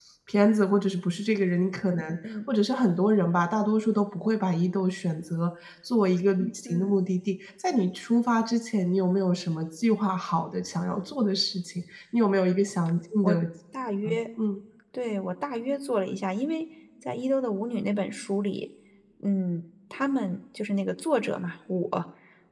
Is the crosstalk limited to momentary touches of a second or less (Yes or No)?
Yes